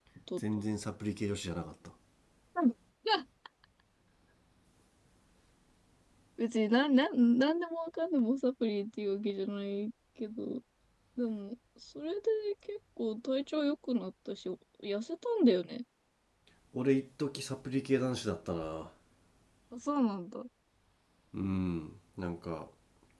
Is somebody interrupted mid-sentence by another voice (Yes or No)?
No